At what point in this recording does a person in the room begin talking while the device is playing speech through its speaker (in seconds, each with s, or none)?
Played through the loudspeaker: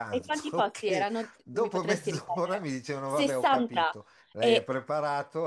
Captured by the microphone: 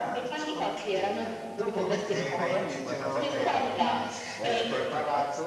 0.9 s